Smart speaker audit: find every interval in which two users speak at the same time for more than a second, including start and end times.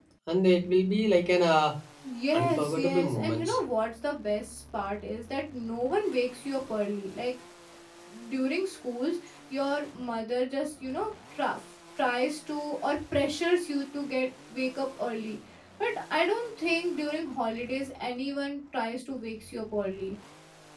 2.3-3.6

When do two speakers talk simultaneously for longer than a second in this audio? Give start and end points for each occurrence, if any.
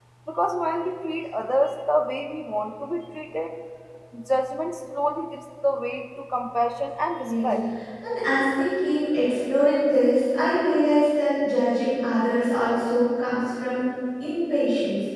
none

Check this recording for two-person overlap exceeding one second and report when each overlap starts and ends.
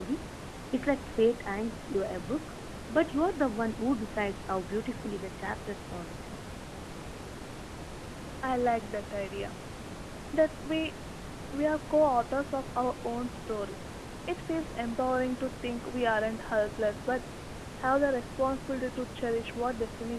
none

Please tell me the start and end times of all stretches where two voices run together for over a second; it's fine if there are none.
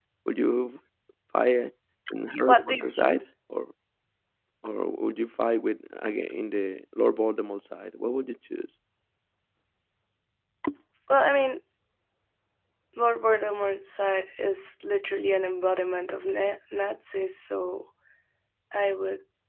none

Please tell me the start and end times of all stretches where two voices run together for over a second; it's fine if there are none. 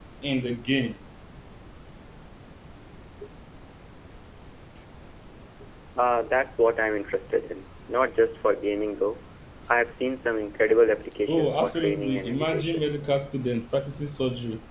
11.3-12.9

